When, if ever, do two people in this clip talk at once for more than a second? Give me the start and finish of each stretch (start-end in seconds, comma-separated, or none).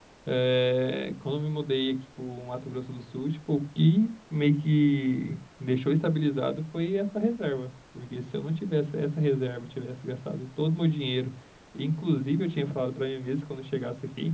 none